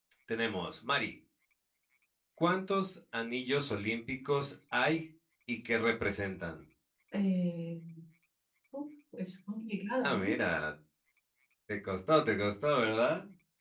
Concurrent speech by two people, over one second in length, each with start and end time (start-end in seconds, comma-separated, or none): none